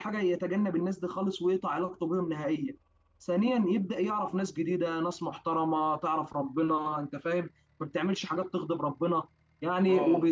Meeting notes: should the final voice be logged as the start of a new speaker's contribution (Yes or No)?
No